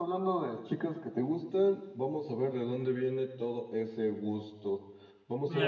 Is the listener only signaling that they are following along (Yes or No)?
Yes